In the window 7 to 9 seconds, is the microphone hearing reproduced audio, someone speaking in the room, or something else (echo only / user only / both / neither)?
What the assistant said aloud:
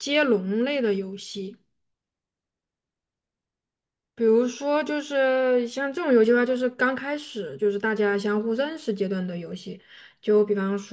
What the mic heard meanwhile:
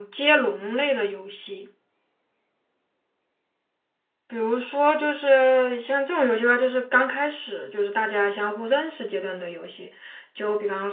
echo only